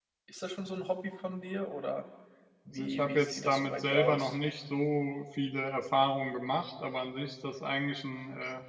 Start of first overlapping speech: 3 s

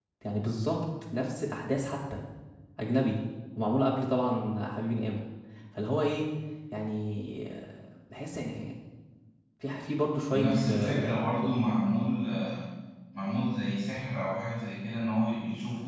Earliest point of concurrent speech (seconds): 10 s

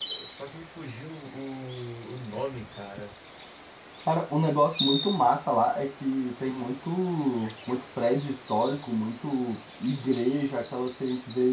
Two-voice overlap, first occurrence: none

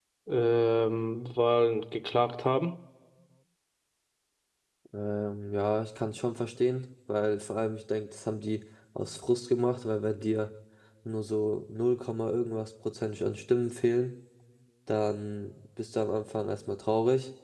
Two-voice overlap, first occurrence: none

